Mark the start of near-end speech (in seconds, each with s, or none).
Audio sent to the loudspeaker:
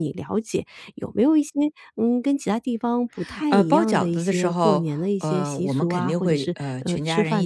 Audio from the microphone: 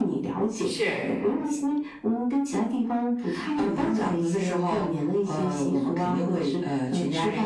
0.6 s